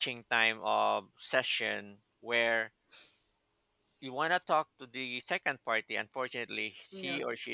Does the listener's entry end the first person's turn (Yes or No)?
No